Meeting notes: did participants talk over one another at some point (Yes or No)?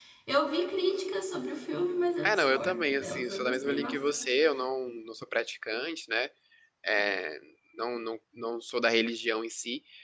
Yes